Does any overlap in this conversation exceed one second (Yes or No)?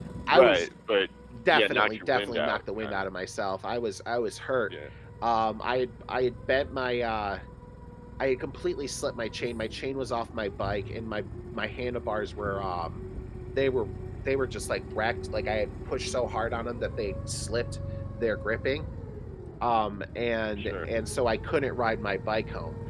Yes